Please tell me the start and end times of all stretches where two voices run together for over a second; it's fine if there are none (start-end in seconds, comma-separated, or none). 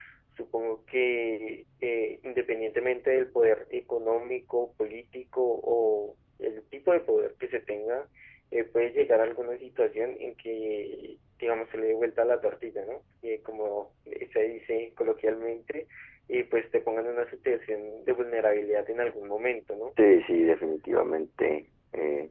none